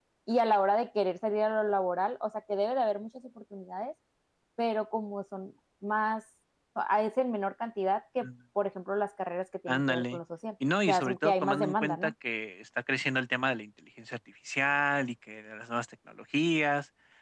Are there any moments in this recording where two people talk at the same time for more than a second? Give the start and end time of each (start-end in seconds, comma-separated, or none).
10.9-12.1